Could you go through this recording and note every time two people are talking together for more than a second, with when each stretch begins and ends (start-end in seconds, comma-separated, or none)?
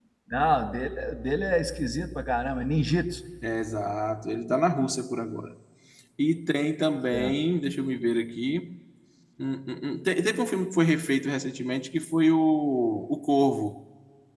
none